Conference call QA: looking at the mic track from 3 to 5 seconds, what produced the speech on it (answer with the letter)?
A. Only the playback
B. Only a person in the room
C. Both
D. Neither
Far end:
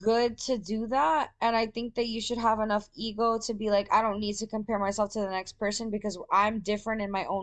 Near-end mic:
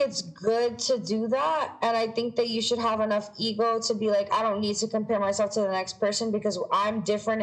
A